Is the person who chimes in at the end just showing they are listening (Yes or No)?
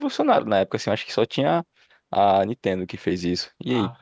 No